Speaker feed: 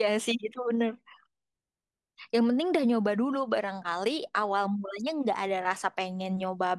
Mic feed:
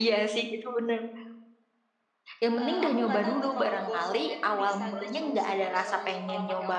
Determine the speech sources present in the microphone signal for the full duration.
both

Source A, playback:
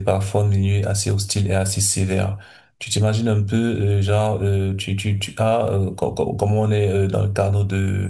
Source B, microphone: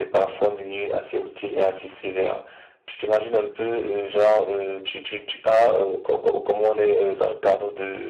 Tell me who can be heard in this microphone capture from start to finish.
echo only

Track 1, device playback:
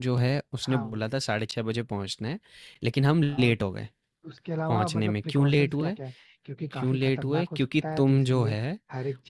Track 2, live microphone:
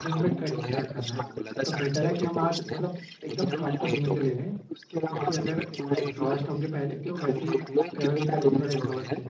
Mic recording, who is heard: both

